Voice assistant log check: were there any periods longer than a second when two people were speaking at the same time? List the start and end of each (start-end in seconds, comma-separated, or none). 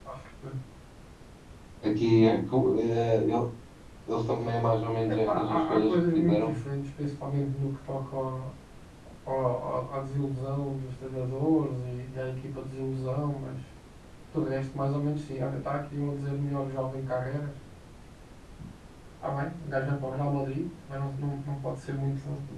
5.1-6.5